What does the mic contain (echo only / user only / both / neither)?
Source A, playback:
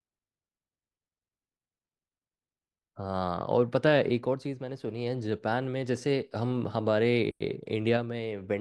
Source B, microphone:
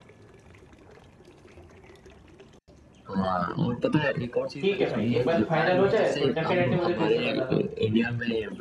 both